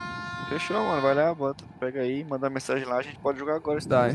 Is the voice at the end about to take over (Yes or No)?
Yes